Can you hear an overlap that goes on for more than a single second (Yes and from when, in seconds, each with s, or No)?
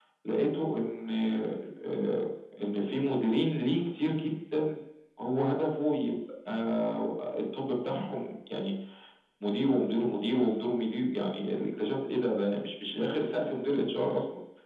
No